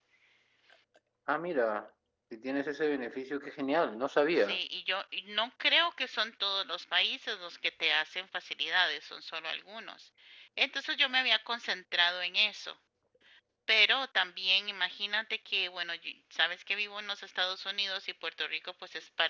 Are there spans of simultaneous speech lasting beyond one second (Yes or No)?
No